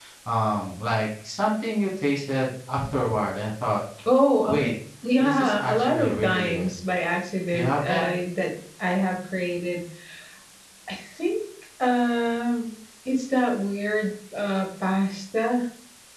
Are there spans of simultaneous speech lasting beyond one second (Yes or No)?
Yes